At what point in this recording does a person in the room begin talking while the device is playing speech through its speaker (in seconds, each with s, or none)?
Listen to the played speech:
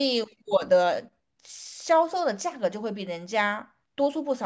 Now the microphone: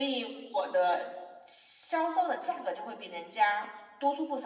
none